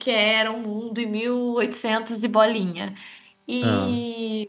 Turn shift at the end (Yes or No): No